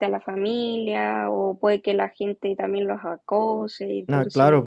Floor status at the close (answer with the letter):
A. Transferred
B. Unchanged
A